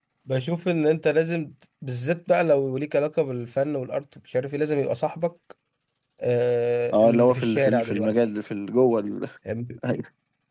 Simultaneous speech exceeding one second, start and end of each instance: 6.9-8.1

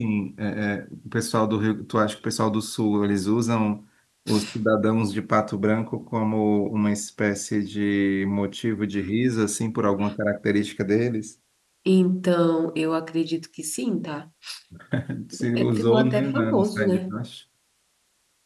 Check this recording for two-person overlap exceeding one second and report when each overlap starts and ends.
15.6-17.2

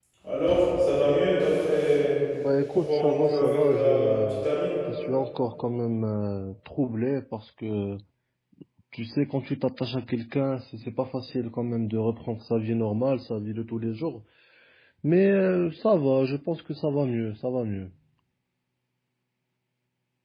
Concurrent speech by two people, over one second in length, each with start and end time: 2.7-4.4

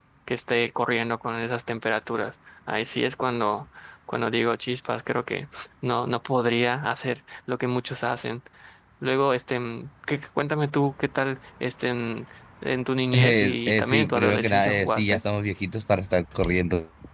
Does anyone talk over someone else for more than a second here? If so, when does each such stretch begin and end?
13.1-15.2

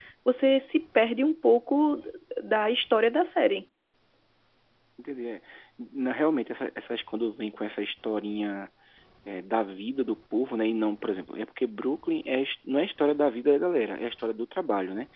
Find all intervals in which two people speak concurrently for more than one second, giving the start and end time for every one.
none

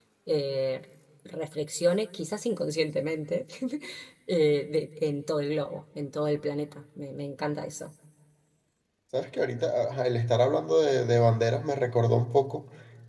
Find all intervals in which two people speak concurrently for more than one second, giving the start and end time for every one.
none

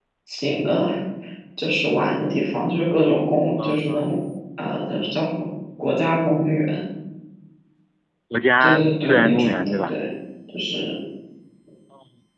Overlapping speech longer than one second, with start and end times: 8.6-9.9

